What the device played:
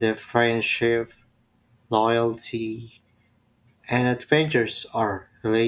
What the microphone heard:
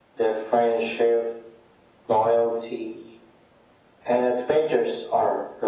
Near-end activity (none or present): none